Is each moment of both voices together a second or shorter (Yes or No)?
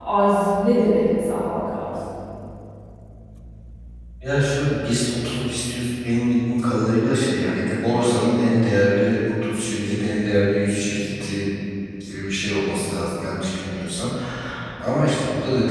Yes